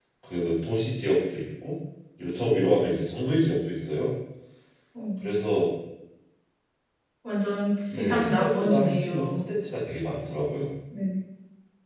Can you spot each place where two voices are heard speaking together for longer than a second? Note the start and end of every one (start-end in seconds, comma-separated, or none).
7.9-9.4